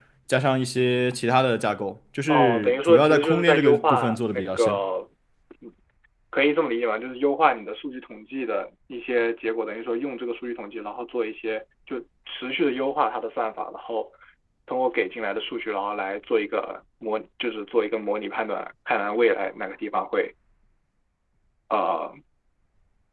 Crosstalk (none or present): present